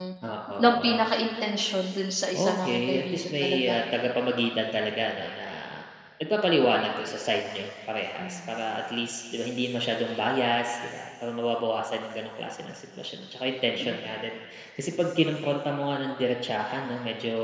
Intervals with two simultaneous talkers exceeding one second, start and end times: 2.3-3.8

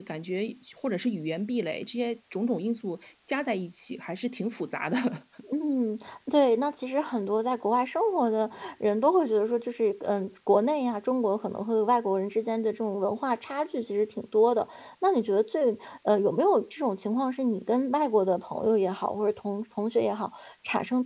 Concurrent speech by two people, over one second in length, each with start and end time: none

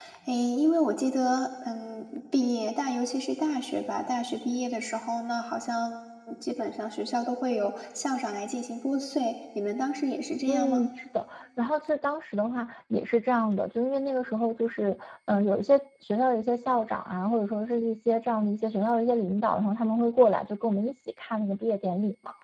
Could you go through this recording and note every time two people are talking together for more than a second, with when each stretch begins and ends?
none

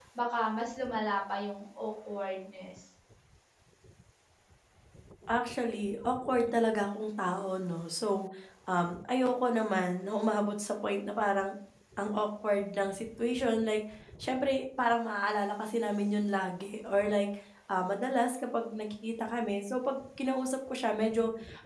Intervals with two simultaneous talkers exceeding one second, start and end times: none

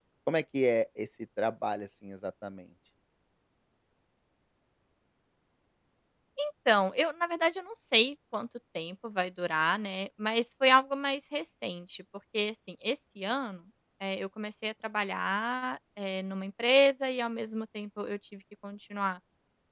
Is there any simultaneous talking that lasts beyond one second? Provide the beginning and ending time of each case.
none

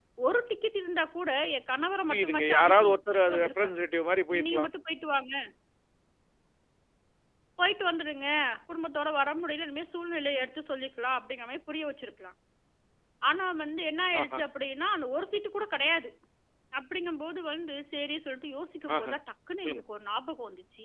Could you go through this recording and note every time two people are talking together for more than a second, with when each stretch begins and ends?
2.1-3.7

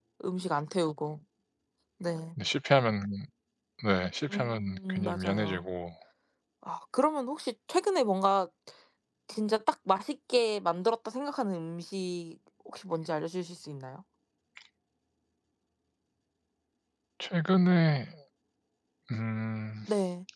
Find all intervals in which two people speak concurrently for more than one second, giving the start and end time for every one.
4.3-5.6

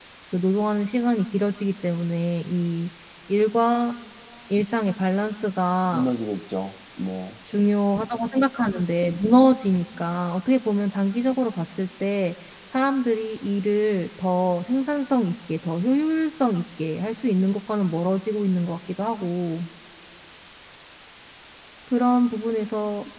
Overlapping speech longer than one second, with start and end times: none

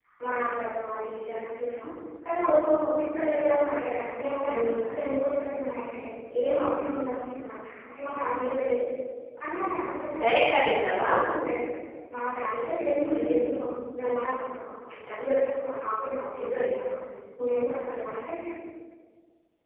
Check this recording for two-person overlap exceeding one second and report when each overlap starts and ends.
none

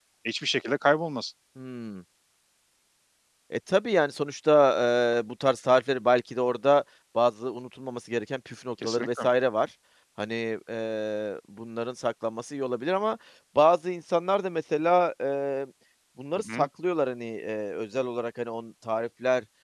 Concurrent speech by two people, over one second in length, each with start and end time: none

